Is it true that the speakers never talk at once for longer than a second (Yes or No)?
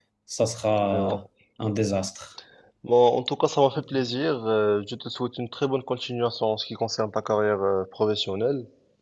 Yes